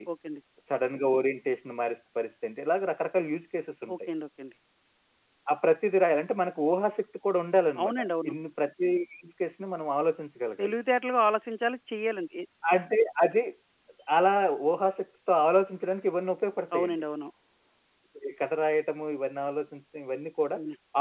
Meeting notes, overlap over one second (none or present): none